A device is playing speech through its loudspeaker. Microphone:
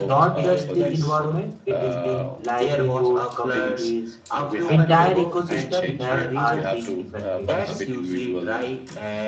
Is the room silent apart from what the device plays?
No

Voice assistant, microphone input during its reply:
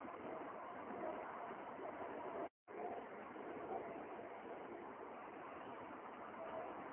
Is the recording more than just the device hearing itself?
No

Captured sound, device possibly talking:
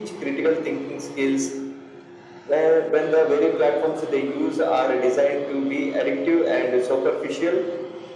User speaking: No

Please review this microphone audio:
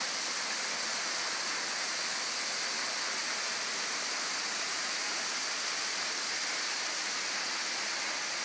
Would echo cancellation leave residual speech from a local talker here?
No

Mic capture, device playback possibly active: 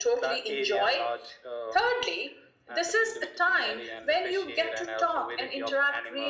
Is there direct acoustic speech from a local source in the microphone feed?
No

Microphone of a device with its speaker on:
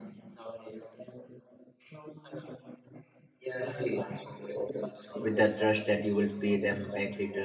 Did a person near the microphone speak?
Yes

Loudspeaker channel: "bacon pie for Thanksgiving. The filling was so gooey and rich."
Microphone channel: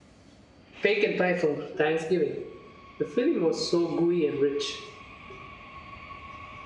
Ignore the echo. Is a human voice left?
No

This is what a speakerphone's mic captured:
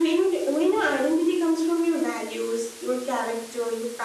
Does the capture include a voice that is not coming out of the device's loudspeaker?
No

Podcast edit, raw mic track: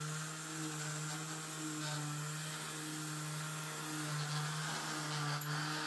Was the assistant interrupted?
No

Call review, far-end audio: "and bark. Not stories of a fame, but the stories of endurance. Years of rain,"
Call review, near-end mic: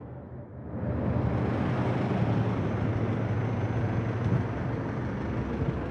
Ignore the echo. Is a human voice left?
No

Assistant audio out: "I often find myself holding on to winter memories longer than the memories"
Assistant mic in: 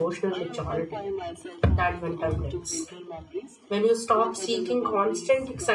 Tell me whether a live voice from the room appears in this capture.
Yes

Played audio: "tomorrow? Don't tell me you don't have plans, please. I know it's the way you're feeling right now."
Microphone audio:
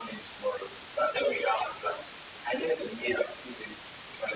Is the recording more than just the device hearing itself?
No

